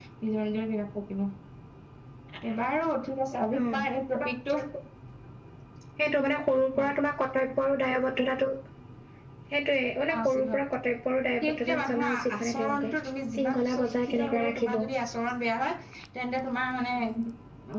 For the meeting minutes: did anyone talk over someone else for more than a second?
Yes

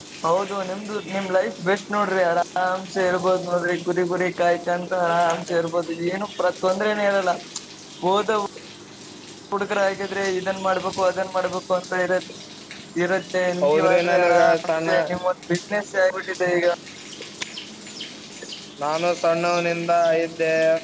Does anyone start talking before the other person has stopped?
Yes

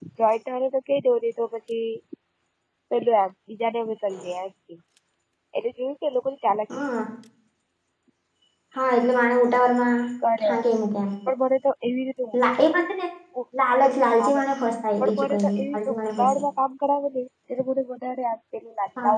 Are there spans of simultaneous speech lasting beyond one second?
Yes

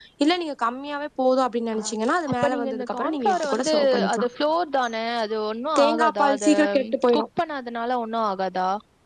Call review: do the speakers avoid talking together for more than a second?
No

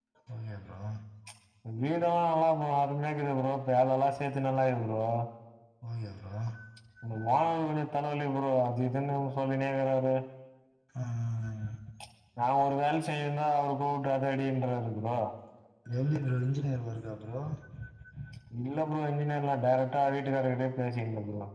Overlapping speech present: No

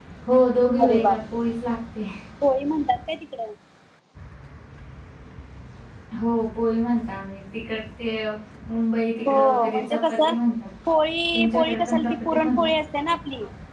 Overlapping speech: Yes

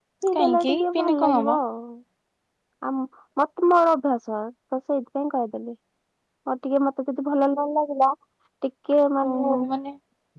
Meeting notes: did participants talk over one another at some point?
Yes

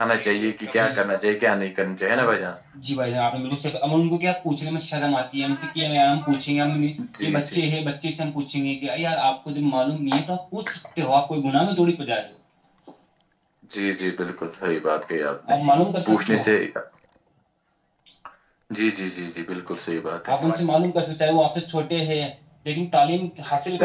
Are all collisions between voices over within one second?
Yes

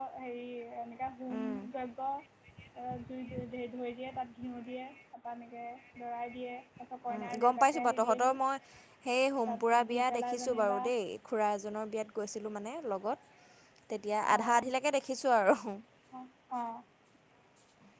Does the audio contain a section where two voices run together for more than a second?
Yes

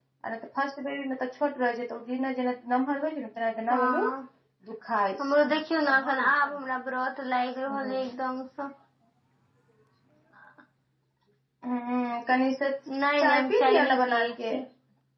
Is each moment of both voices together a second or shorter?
No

